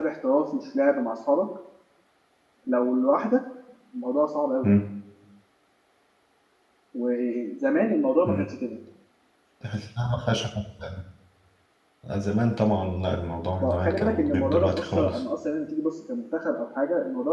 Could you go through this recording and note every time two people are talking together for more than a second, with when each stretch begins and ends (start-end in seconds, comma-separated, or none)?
13.6-15.2